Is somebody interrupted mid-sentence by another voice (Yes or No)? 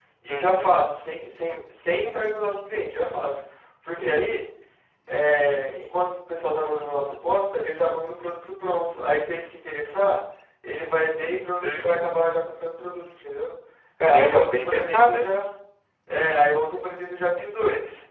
Yes